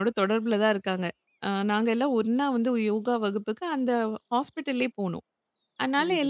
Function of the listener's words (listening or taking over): listening